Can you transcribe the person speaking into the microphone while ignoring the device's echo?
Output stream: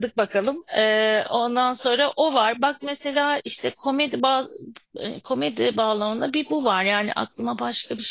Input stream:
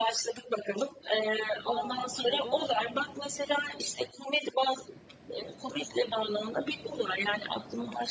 Aa, neden?

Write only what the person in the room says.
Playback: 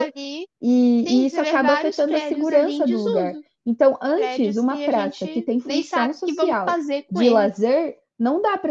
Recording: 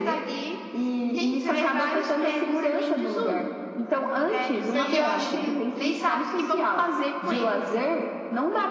Porque eu acho que.

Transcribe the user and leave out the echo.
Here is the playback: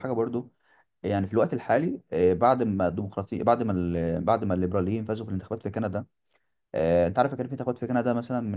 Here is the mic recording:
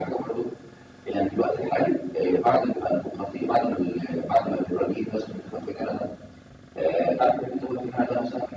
none

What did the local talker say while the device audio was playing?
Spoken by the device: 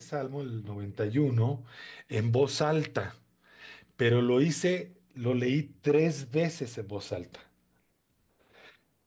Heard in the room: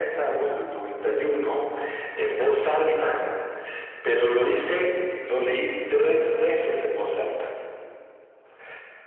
none

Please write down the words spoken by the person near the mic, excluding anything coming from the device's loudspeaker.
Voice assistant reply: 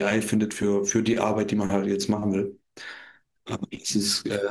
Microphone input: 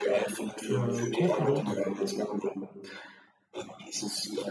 äh, Copilot

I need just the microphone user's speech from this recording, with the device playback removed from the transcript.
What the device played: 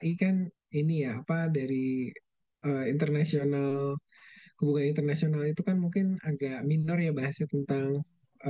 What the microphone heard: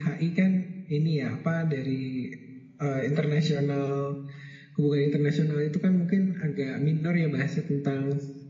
none

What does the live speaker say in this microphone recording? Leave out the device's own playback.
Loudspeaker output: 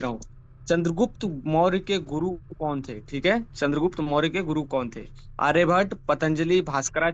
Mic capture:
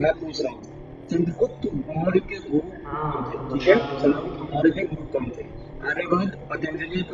हाँ तो बता दो ना

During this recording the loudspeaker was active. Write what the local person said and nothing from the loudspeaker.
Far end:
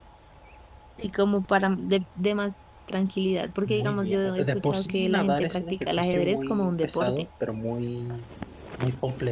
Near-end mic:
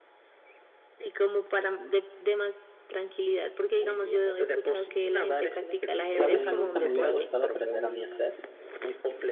¿Sabes algo que me hubiera gustado aprender a mí a hacer?

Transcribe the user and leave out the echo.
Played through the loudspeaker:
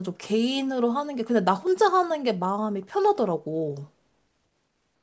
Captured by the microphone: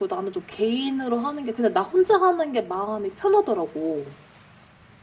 none

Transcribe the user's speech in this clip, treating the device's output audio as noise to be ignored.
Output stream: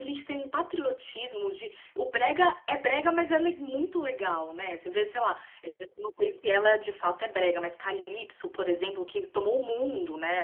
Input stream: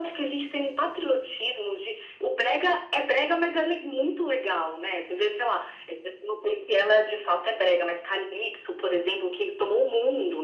none

